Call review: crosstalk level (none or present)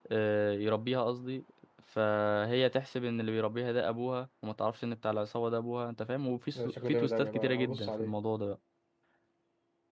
present